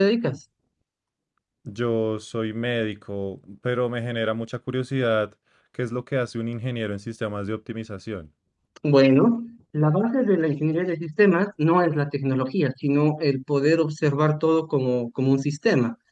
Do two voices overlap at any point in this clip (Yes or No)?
No